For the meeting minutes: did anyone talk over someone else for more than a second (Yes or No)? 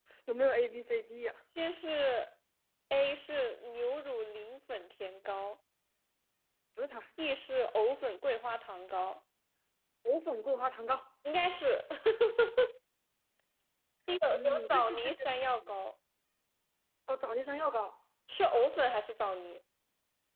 Yes